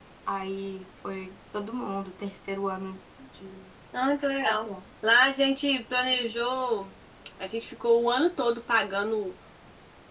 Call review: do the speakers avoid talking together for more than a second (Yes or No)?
Yes